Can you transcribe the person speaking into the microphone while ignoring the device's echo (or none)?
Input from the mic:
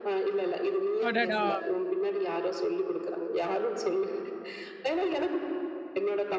அடடா!